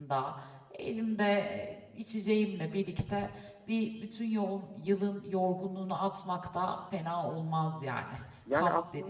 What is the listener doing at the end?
taking over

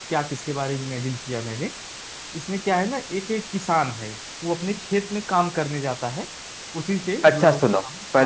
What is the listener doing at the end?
taking over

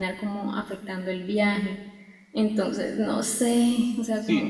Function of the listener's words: taking over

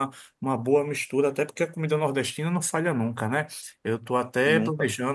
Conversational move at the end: listening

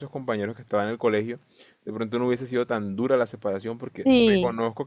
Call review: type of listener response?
listening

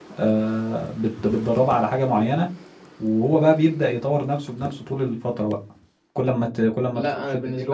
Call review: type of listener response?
taking over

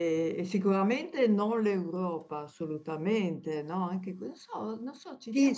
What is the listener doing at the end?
taking over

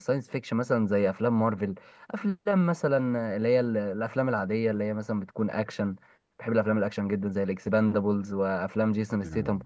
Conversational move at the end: listening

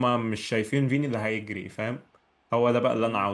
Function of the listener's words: listening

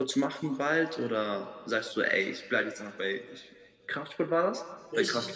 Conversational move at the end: taking over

